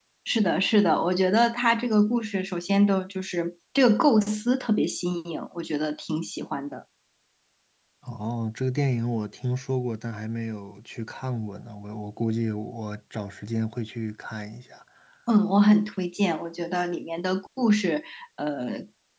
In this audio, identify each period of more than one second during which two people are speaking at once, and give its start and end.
none

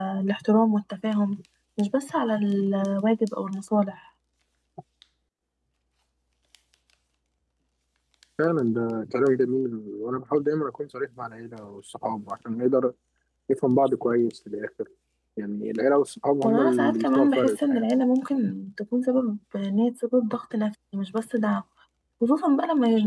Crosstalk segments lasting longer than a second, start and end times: 16.4-17.8

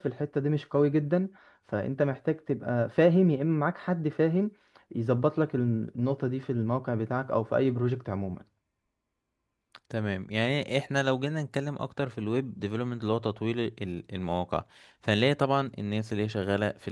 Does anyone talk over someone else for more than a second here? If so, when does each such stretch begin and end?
none

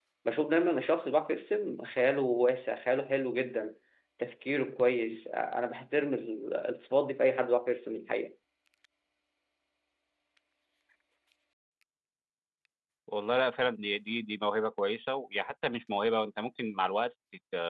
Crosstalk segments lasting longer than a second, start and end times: none

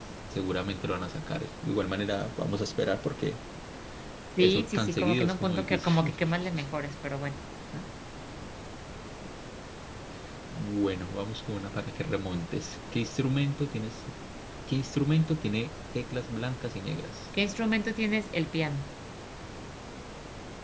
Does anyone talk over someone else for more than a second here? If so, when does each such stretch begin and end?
4.4-6.2

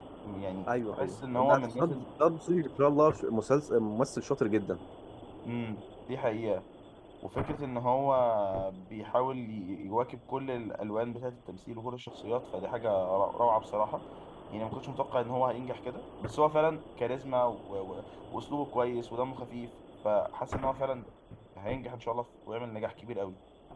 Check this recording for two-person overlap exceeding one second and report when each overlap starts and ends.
0.7-2.0

